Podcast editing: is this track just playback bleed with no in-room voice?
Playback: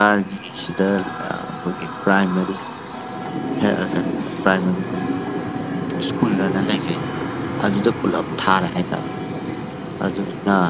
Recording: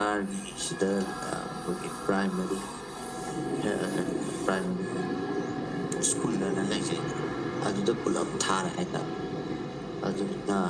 Yes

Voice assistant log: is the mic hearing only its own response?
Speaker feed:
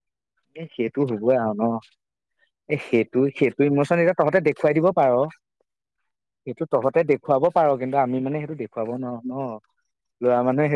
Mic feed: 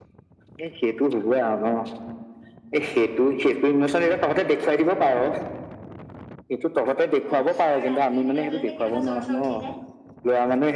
No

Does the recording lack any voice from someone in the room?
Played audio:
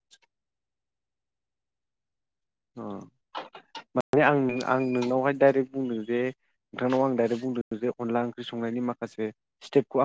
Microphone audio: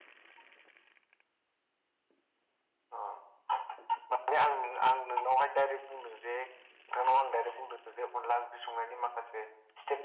Yes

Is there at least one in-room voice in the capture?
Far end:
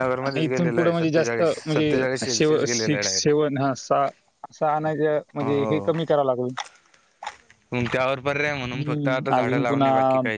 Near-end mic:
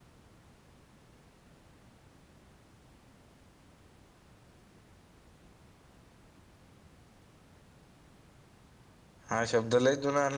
Yes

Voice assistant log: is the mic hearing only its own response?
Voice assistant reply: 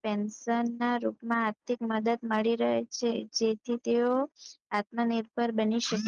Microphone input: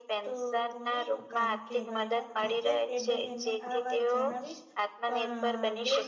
No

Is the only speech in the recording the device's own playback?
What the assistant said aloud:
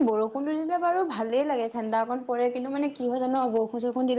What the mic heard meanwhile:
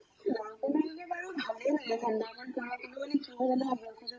Yes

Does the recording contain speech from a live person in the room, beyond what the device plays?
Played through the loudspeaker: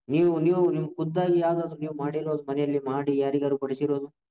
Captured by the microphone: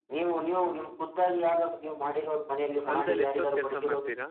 Yes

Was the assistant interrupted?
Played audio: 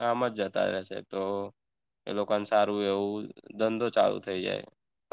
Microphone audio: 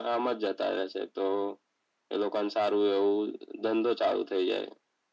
No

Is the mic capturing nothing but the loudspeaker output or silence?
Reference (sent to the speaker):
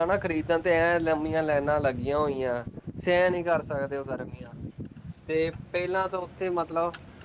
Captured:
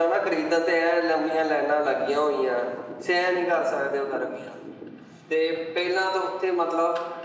Yes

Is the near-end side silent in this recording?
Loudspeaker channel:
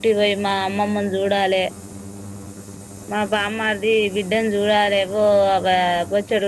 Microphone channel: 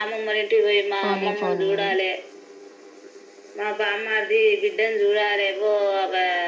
No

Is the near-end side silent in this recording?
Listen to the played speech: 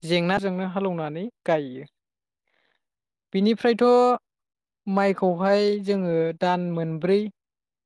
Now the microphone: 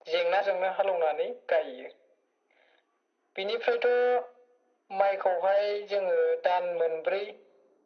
Yes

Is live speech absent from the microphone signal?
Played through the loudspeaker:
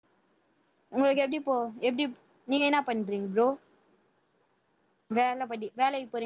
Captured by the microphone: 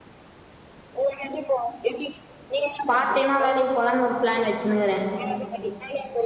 No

